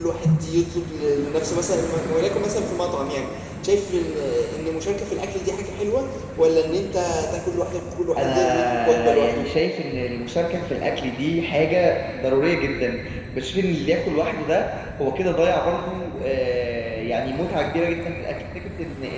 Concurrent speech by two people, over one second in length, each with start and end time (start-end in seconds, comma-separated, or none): 8.2-9.4